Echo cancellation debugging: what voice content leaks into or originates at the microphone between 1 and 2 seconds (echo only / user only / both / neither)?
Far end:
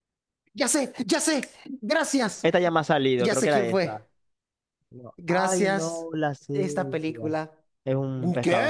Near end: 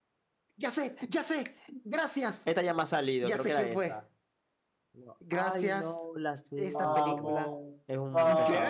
echo only